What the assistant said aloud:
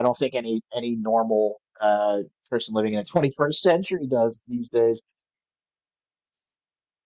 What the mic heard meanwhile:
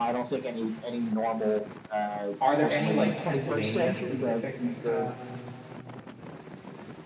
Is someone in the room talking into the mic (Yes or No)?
Yes